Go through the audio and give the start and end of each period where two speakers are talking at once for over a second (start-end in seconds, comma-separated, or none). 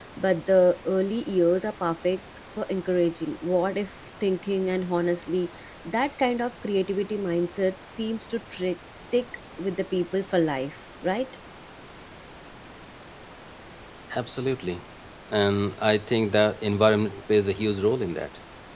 none